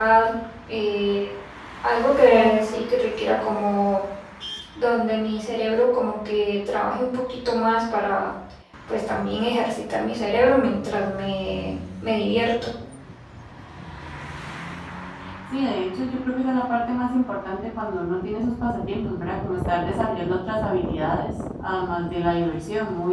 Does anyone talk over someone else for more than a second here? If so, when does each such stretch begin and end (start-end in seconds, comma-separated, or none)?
2.3-3.7